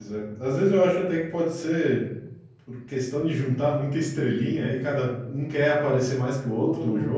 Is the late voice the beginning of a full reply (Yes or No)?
No